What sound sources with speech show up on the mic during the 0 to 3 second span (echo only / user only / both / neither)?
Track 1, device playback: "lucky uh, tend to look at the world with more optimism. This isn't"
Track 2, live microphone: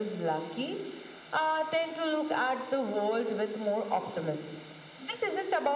echo only